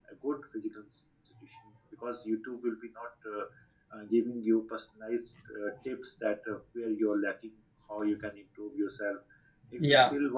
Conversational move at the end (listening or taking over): listening